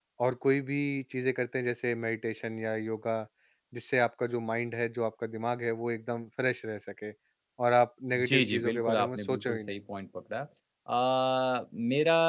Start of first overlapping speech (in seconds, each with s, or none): 8.1 s